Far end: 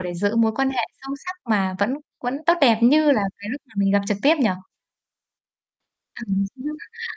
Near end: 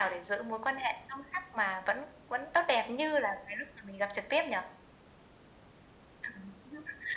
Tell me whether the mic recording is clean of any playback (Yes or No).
No